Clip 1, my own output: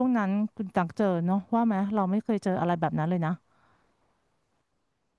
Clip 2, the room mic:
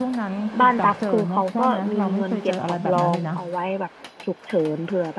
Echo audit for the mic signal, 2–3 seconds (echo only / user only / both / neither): both